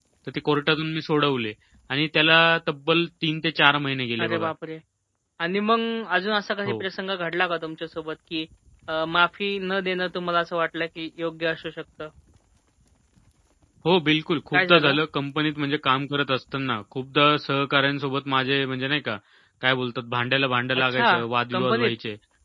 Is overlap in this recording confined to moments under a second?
Yes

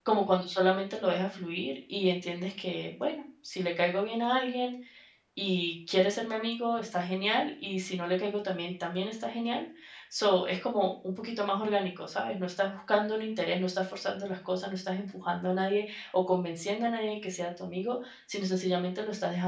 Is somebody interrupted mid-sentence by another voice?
No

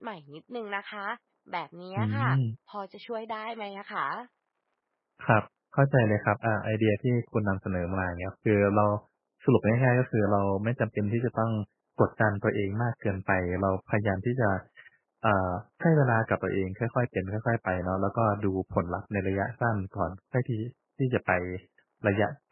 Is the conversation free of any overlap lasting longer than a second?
Yes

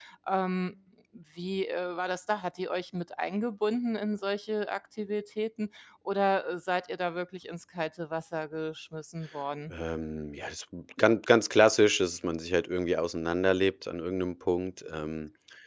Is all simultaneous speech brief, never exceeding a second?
Yes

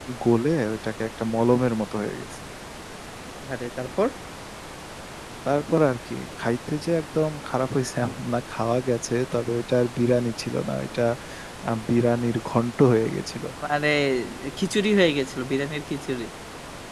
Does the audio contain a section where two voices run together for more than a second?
No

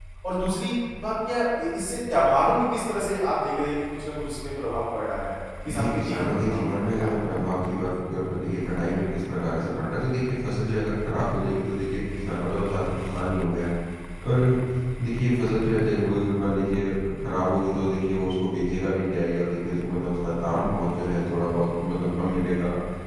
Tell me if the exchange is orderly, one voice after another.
No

